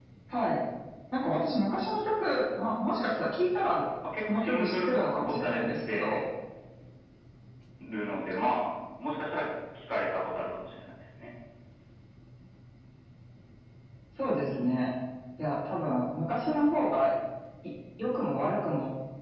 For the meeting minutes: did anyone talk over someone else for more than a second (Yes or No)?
Yes